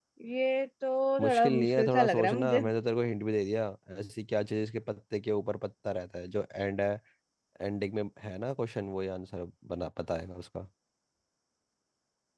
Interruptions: present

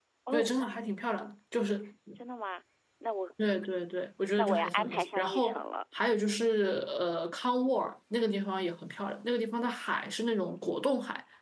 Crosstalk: present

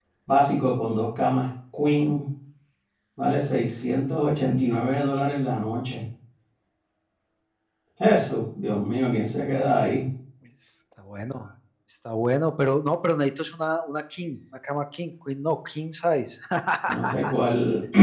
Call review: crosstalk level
none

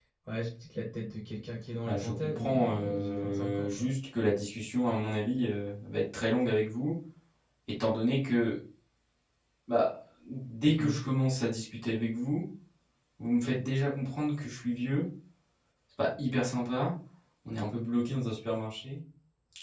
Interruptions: present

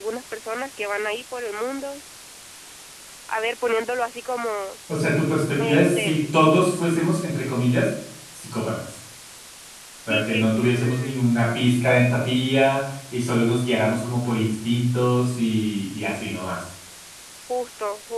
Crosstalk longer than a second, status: present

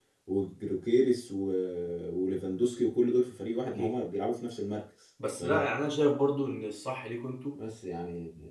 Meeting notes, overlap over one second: none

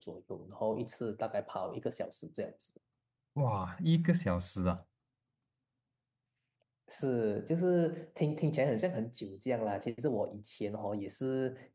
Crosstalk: none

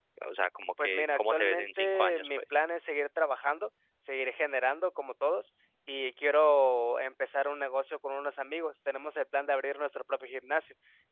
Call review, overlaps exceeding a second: present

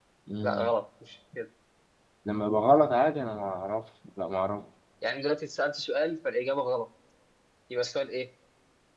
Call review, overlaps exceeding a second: none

